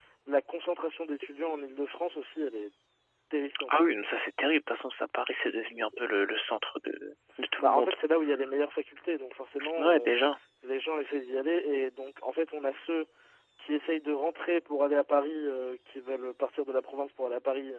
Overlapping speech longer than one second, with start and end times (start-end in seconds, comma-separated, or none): none